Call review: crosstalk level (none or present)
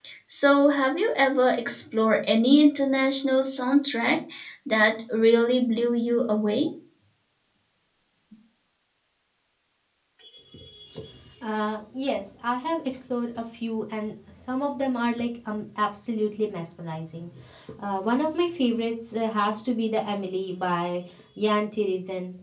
none